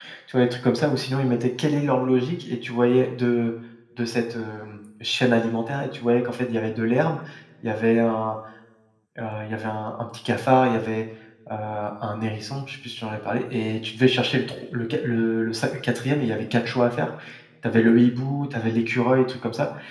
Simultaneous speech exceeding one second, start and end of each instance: none

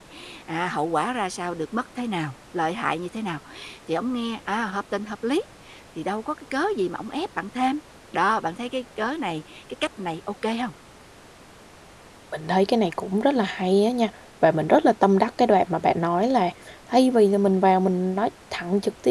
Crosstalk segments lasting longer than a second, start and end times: none

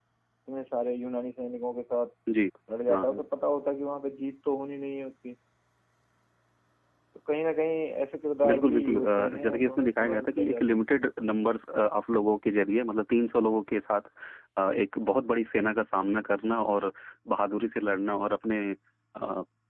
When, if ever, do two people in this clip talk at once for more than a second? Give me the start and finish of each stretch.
8.5-10.8

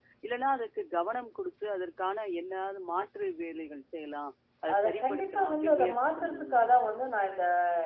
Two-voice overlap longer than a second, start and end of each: 4.7-6.7

